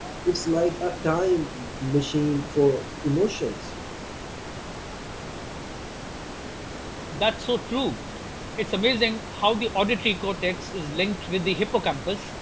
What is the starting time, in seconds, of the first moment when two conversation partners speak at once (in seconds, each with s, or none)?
none